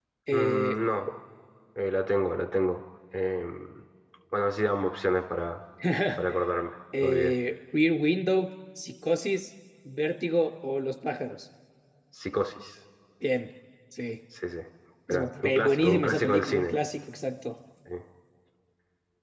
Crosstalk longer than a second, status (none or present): present